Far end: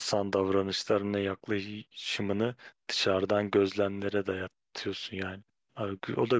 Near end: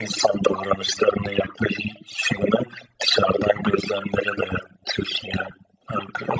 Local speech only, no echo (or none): none